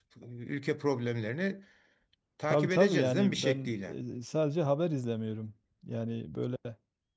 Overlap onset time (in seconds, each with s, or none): 2.5 s